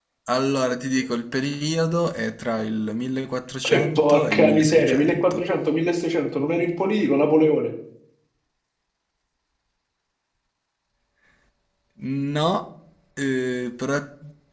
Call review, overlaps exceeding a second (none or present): present